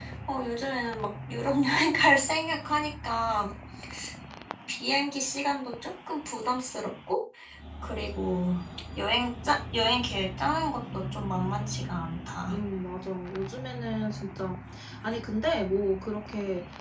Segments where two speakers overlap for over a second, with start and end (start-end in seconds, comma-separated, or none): none